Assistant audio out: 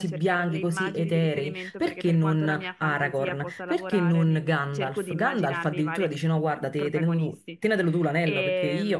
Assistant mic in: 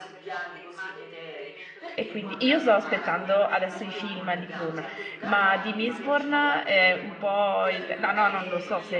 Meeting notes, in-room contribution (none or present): present